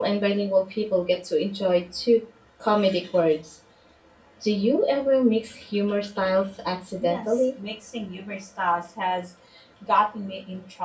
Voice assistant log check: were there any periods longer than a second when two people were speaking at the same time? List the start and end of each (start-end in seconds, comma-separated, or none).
none